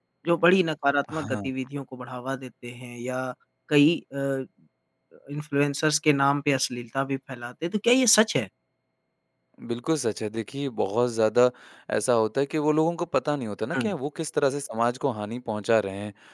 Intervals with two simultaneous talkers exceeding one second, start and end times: none

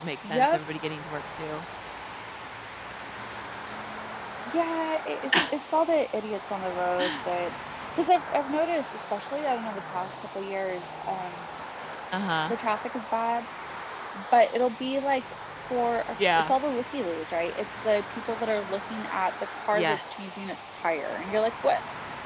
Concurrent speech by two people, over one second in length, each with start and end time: none

